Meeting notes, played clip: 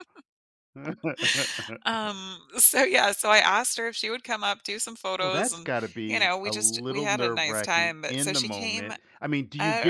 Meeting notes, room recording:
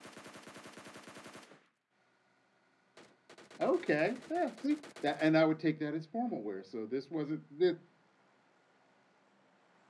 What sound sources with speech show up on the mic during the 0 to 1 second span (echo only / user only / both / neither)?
neither